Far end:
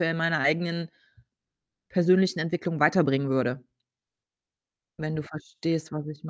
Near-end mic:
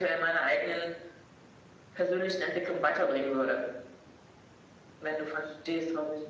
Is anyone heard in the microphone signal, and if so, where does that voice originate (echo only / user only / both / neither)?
echo only